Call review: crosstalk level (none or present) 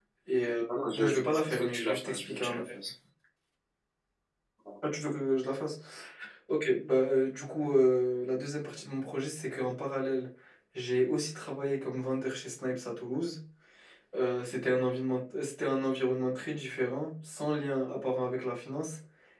present